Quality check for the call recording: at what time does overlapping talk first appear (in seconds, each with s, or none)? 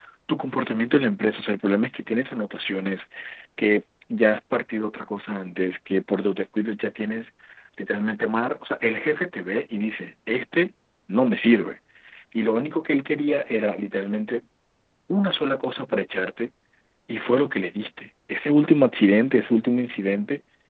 none